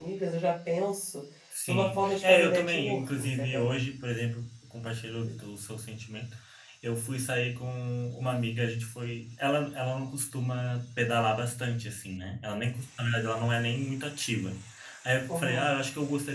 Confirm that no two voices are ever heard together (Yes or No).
No